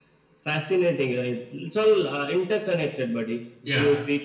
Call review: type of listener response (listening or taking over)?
listening